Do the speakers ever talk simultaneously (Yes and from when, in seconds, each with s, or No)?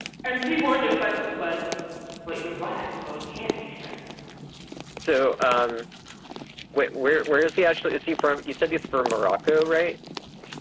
No